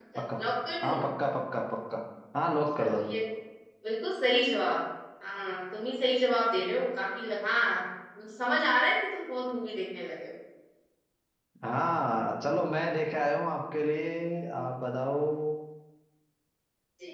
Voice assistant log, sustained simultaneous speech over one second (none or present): none